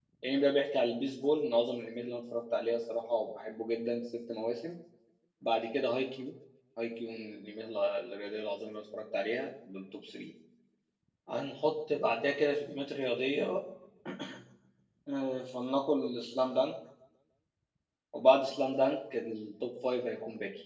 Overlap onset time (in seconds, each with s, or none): none